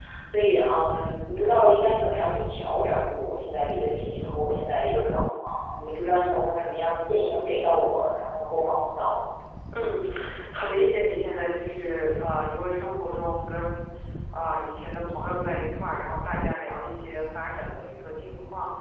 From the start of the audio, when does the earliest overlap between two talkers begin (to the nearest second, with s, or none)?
none